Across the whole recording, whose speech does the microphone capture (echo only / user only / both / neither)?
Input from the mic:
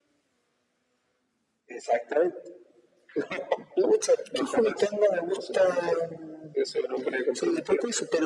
echo only